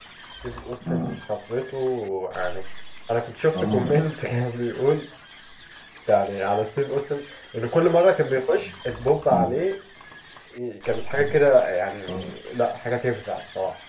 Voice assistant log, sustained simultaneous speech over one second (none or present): none